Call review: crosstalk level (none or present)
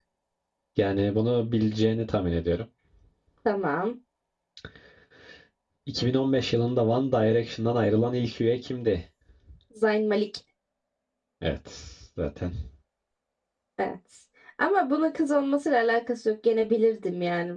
none